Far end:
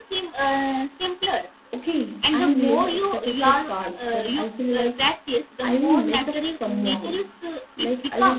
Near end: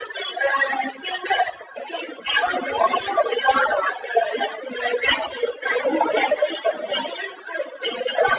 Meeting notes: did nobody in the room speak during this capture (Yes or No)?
Yes